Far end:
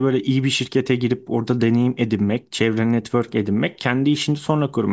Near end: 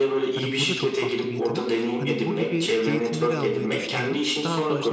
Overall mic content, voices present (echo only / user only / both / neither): both